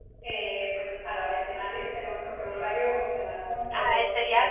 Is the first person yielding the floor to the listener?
Yes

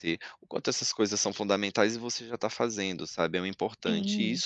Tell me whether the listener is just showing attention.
Yes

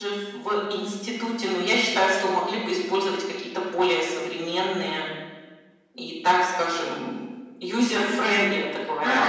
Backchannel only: No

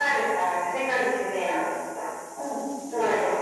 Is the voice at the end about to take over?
Yes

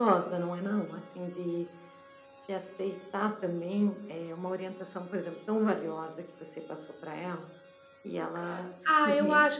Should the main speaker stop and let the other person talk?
Yes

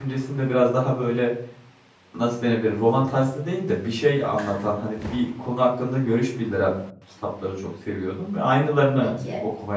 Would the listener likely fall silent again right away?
Yes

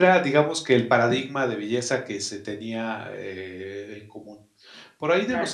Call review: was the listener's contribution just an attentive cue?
Yes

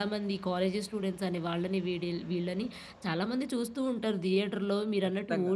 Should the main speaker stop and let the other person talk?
Yes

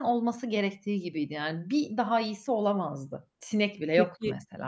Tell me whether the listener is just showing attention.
No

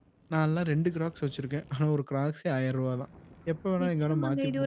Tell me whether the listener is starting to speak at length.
Yes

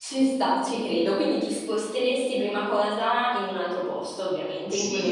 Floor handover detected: Yes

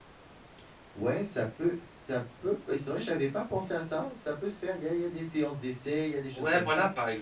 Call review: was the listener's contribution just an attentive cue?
No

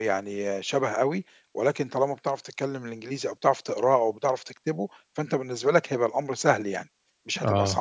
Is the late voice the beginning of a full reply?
Yes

